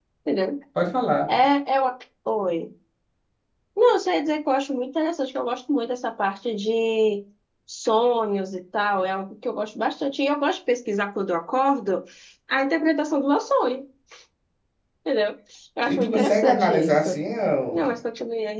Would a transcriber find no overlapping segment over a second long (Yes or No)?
No